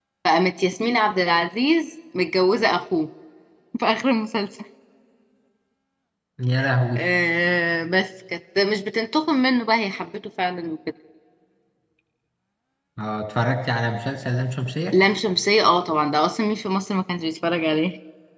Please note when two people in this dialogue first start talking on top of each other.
none

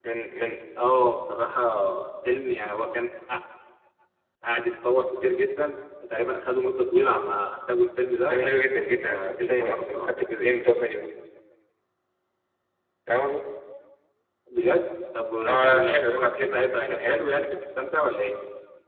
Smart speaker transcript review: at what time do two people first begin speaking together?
8 s

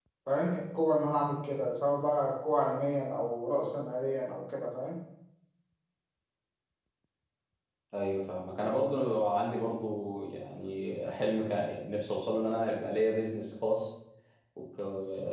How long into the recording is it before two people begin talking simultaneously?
none

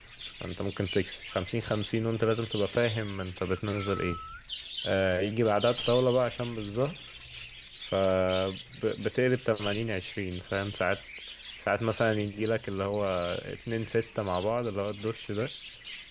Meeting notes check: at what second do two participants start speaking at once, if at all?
none

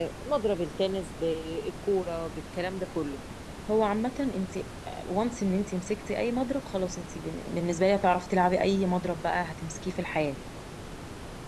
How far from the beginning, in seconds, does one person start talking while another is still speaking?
none

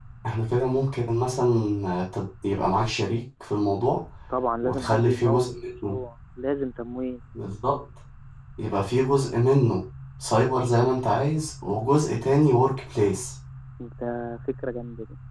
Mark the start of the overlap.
5 s

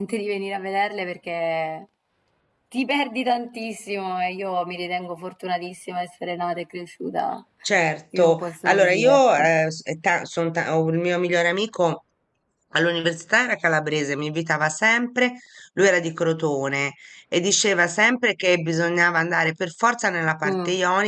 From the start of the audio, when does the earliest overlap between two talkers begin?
8 s

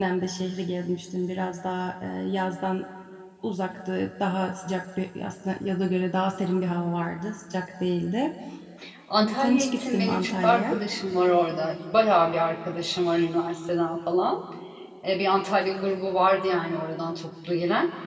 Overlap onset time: 9 s

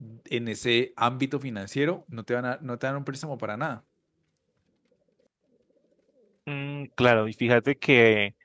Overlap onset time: none

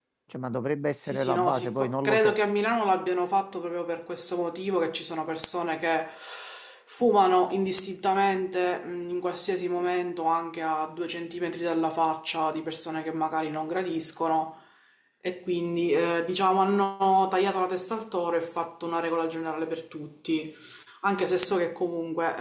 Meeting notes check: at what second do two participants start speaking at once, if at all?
1 s

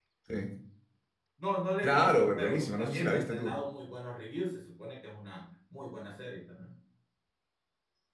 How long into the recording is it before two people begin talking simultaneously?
2 s

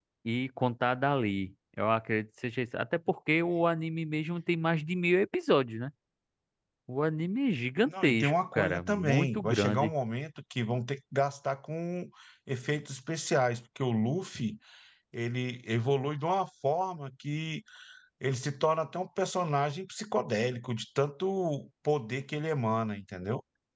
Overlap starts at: 8 s

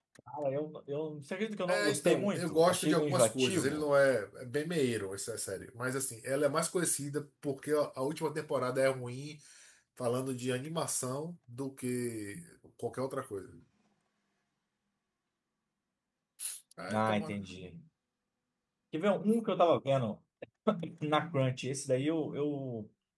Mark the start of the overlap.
2 s

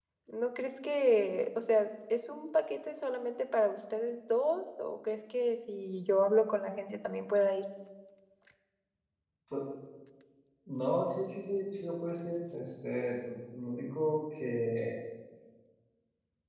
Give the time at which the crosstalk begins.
none

